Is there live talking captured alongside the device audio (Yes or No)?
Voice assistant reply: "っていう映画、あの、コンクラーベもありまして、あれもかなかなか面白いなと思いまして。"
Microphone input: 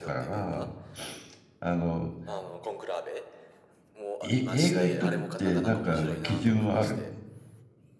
Yes